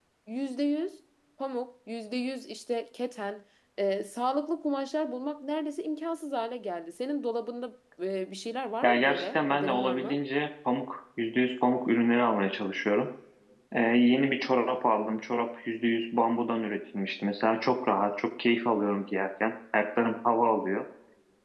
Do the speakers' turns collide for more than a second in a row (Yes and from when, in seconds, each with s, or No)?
Yes, from 8.8 s